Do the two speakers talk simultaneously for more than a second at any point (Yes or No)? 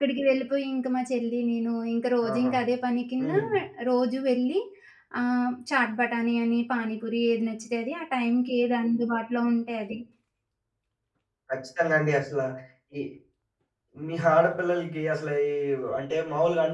No